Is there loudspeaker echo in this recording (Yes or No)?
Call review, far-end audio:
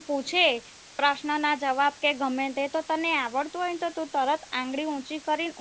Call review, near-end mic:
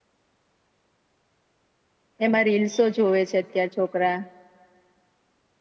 No